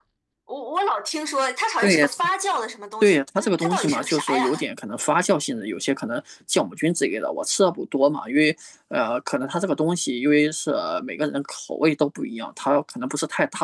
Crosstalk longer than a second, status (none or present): present